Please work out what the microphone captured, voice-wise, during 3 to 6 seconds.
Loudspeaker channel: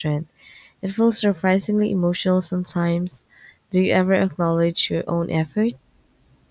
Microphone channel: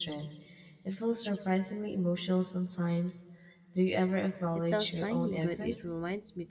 both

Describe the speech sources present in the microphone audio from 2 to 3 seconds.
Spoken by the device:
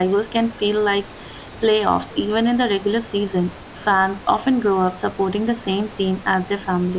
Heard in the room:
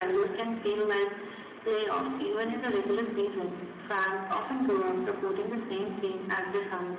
echo only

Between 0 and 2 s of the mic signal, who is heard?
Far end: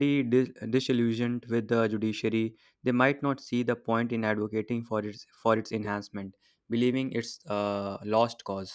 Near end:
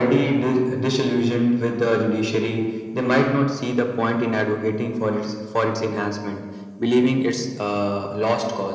echo only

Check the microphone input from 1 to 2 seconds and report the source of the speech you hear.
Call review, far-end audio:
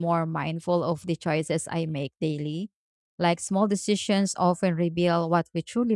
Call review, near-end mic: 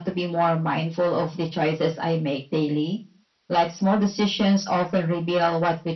echo only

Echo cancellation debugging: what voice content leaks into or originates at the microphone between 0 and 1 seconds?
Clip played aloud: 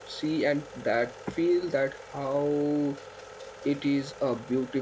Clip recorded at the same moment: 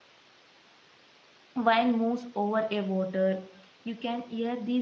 neither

